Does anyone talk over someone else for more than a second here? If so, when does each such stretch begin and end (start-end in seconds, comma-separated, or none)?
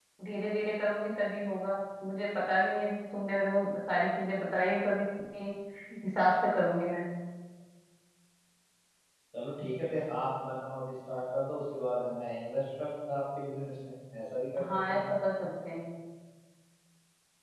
none